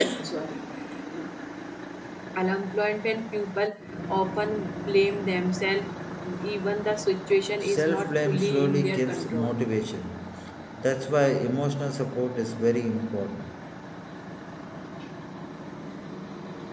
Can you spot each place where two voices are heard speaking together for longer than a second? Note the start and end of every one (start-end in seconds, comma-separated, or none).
7.6-9.6